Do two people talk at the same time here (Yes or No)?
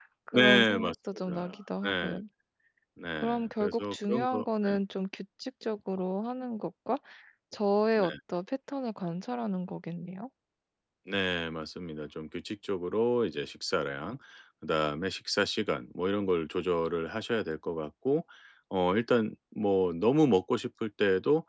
Yes